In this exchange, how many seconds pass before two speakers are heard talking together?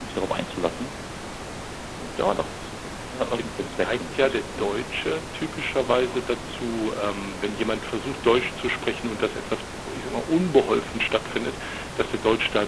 3.3 s

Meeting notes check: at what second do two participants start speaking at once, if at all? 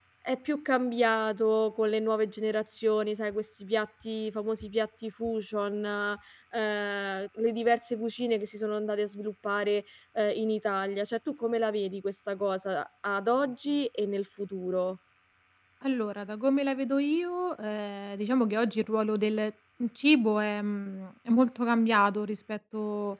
none

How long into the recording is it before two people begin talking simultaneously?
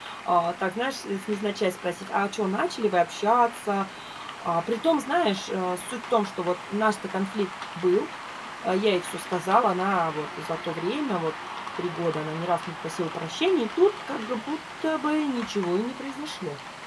none

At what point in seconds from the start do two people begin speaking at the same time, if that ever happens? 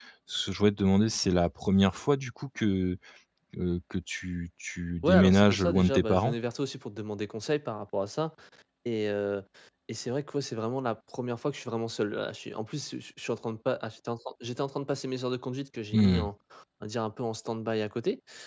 5.0 s

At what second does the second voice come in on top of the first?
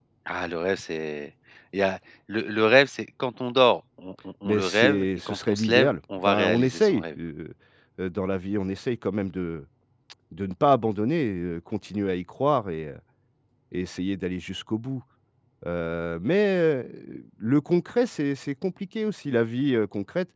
4.5 s

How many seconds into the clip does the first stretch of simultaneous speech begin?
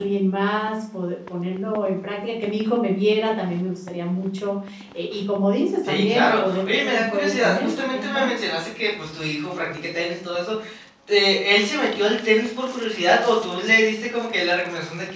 5.8 s

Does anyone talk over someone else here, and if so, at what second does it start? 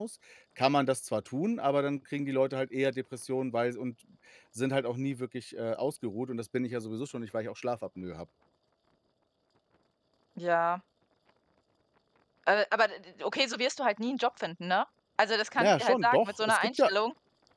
15.6 s

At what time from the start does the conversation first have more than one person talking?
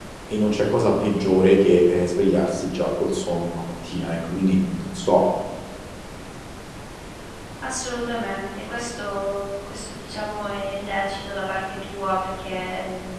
none

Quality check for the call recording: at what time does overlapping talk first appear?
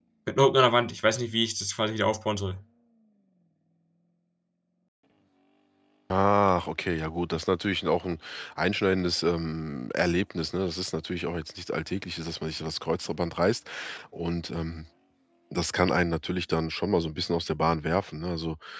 none

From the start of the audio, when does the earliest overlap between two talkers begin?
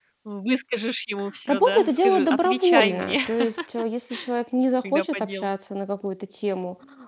1.5 s

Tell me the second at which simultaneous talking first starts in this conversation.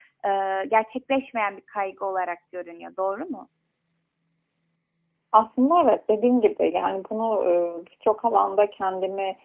none

